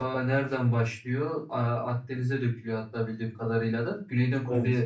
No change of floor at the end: Yes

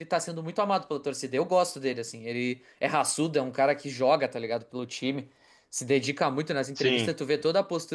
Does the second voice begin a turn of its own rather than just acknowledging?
No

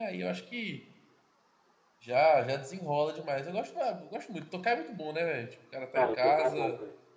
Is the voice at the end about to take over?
Yes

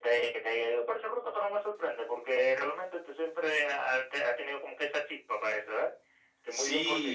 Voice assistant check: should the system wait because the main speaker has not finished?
No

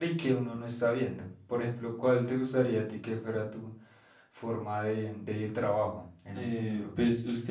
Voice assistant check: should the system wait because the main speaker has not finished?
No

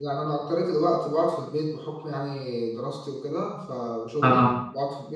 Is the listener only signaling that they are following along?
Yes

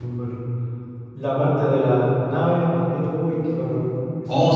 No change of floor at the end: No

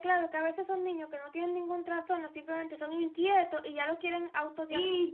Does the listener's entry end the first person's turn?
Yes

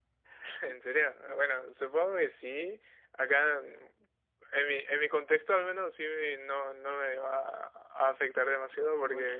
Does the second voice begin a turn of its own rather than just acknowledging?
No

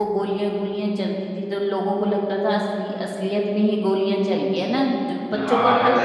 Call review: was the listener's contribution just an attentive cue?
No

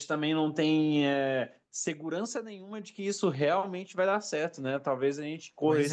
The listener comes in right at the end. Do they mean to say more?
No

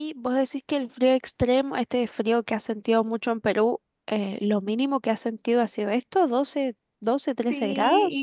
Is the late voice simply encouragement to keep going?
No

